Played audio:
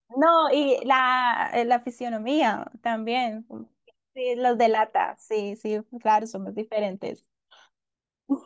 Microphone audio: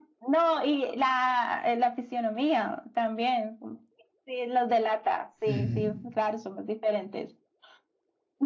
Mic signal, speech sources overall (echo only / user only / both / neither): both